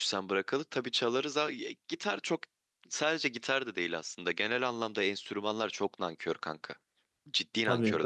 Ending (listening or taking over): taking over